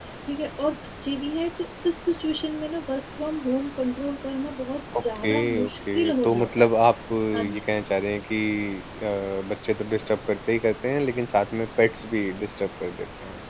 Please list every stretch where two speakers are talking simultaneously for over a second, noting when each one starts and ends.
5.0-6.8

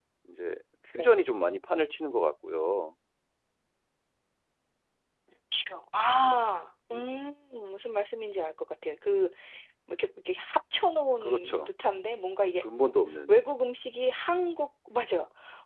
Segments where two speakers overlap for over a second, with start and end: none

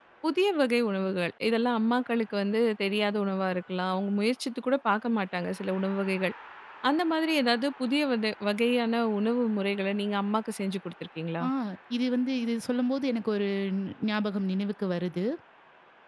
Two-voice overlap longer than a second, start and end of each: none

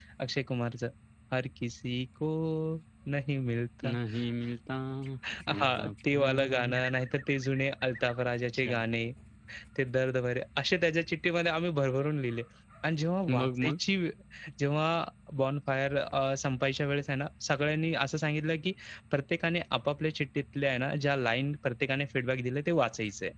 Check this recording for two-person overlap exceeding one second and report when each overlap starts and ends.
5.5-6.7

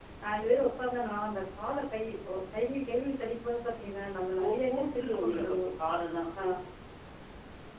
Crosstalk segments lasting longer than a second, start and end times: 4.4-5.8

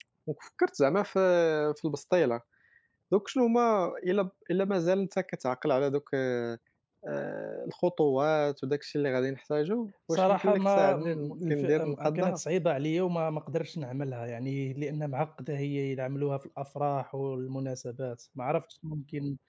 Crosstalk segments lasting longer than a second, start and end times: 10.1-12.4

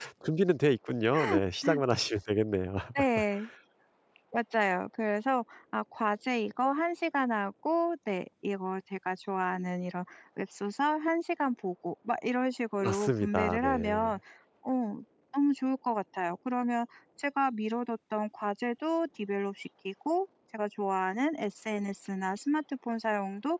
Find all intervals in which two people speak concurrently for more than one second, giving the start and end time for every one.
12.8-14.1

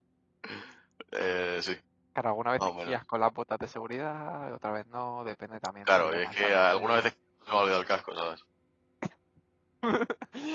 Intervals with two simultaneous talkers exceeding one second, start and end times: 5.8-7.0

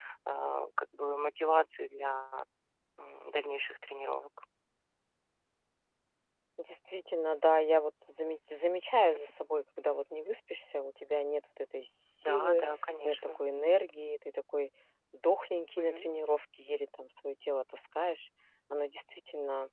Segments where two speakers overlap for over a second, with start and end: none

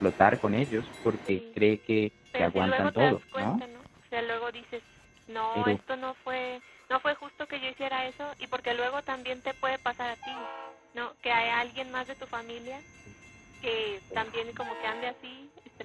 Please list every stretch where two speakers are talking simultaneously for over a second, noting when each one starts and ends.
2.4-3.6

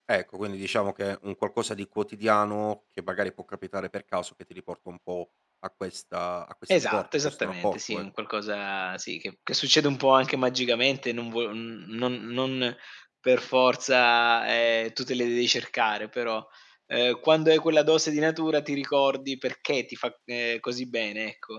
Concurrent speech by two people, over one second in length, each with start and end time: 6.7-8.0

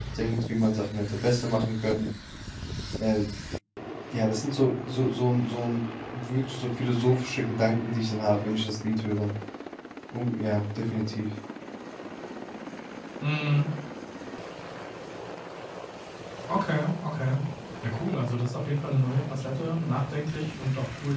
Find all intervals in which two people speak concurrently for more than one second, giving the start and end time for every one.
none

